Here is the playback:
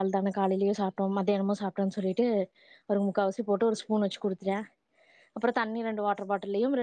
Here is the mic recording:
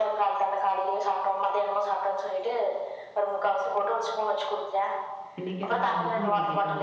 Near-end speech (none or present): present